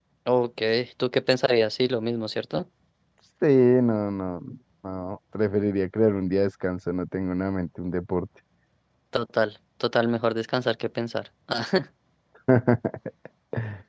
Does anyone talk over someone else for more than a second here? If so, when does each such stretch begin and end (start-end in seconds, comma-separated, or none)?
none